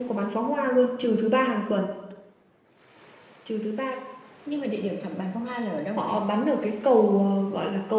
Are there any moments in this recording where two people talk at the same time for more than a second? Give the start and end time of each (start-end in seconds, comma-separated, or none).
none